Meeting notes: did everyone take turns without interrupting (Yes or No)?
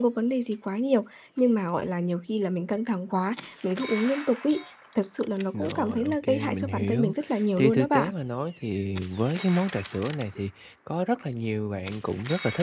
No